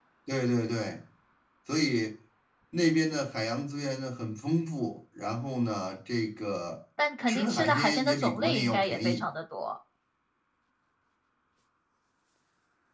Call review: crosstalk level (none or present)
present